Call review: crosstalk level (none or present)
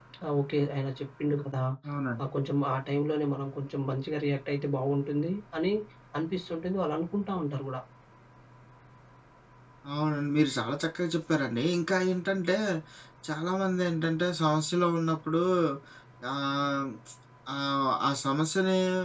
none